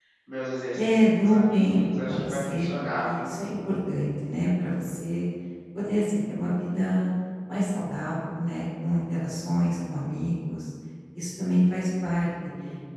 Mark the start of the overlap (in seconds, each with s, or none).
0.8 s